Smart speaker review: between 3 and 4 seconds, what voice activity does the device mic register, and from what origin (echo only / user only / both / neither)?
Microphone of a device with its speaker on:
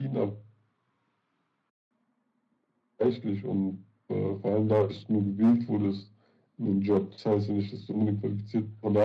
echo only